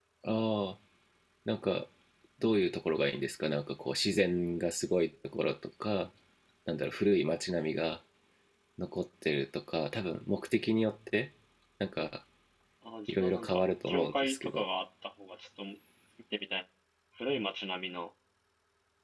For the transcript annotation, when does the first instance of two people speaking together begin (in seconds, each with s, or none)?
13.1 s